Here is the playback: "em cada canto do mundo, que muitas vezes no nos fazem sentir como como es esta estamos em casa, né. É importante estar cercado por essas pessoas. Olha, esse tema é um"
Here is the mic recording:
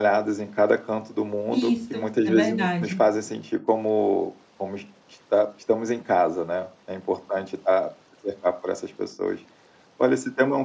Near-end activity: present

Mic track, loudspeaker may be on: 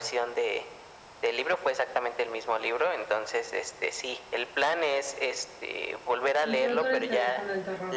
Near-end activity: present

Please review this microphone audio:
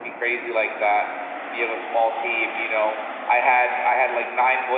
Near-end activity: none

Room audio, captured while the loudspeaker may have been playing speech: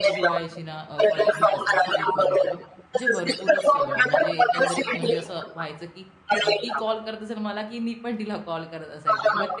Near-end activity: present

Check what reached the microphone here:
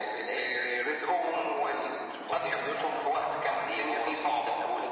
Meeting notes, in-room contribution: none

